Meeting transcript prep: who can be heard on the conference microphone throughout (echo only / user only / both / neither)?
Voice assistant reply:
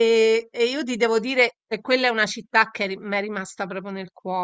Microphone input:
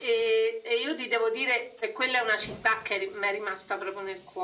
echo only